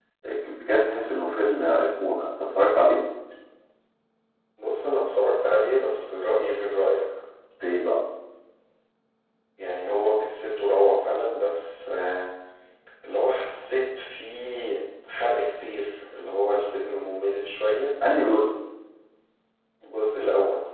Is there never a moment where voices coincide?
Yes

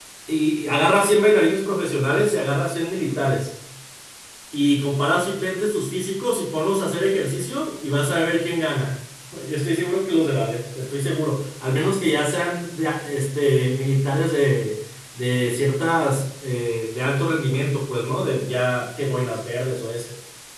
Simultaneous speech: No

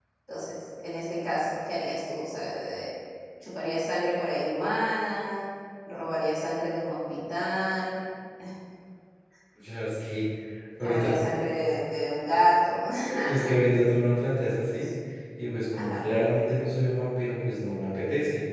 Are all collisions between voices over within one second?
Yes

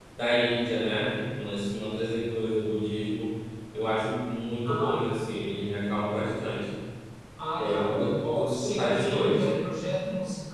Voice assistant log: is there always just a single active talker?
No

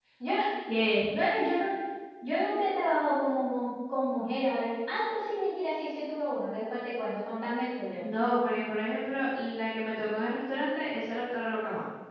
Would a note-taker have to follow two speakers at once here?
No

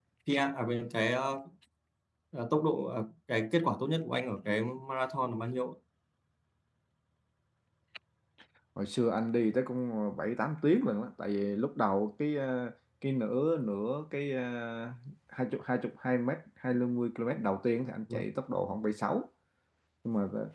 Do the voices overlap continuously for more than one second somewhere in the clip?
No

